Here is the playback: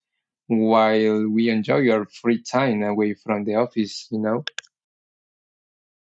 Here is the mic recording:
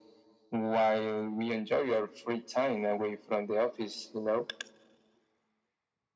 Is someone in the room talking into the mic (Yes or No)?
No